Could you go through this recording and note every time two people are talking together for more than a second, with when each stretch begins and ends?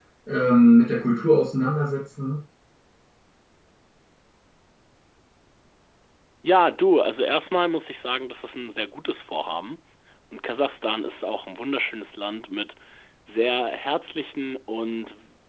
none

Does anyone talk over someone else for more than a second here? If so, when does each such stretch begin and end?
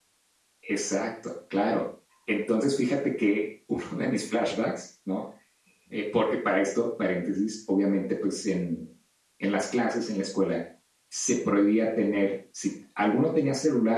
none

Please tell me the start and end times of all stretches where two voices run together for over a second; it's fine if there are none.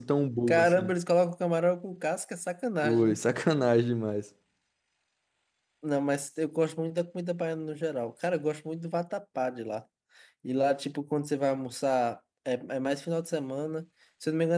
none

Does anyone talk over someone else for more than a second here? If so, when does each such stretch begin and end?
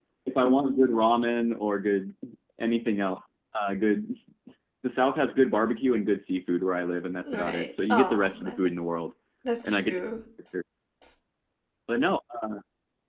7.2-8.6

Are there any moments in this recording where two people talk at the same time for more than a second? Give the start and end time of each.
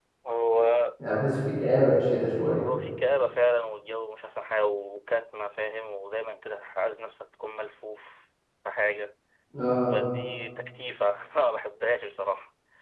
none

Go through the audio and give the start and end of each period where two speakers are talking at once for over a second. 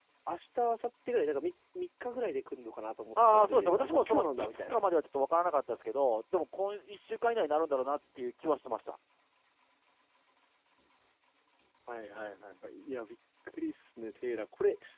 3.3-4.8

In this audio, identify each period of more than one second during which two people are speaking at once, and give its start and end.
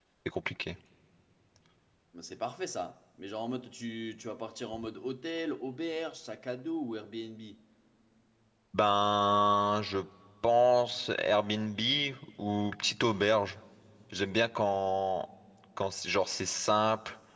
none

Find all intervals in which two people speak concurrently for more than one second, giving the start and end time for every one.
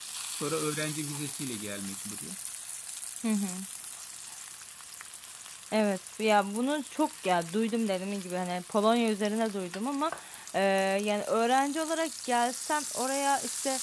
none

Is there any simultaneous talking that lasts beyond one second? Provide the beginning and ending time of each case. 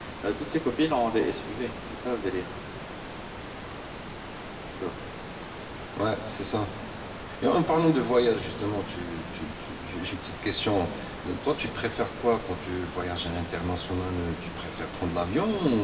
none

